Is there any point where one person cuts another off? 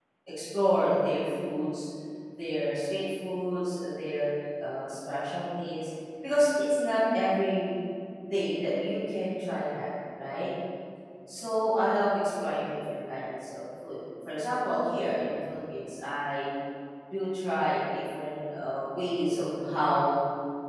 No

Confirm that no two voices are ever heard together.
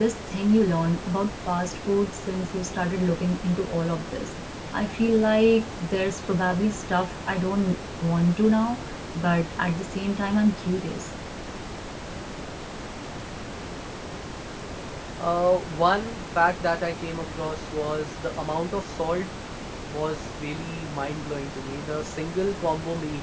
Yes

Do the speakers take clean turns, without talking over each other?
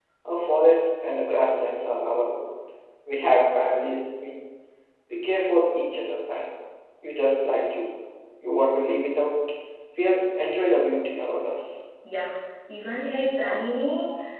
Yes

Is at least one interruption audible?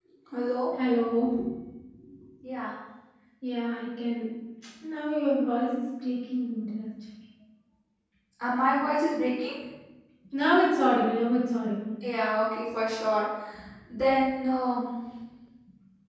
No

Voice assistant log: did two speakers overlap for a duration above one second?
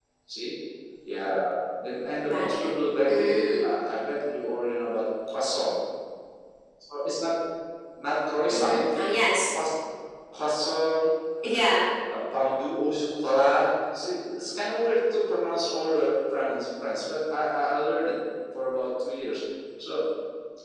Yes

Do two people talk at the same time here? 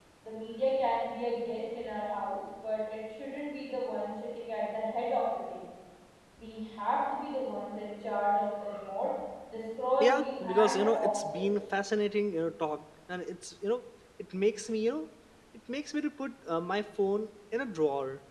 Yes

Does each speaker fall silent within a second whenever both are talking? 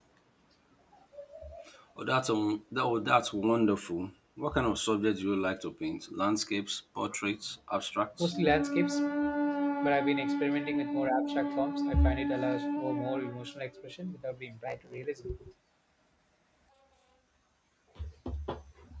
Yes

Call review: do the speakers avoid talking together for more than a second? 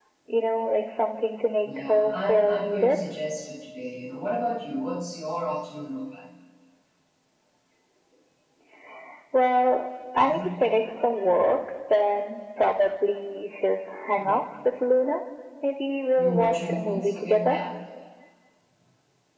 No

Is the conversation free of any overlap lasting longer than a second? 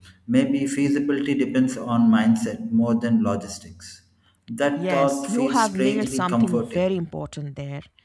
No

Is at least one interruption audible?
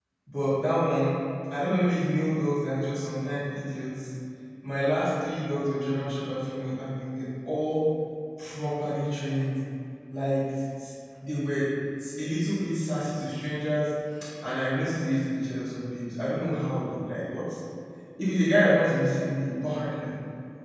No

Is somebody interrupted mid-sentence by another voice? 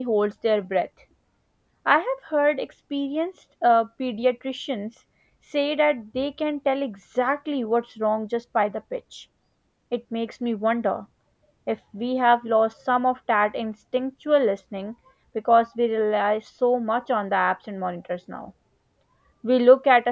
No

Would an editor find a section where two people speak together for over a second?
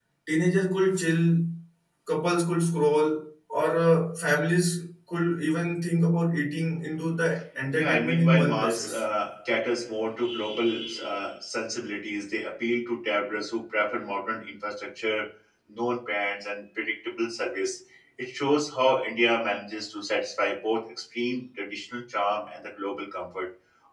Yes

